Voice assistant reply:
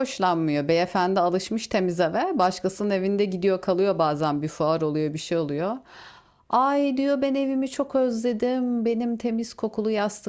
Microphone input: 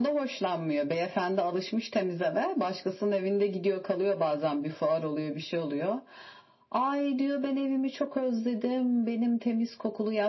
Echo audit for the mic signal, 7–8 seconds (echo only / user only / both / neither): echo only